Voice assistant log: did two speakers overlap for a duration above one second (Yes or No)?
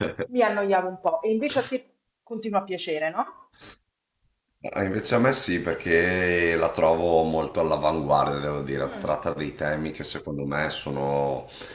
No